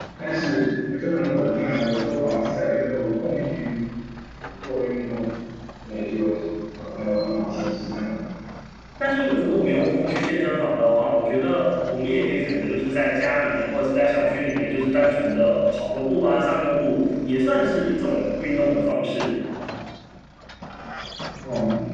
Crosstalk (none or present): none